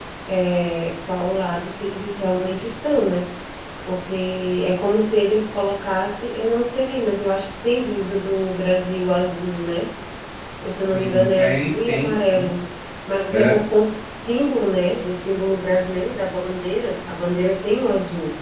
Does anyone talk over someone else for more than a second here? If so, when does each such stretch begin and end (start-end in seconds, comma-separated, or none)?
10.9-12.5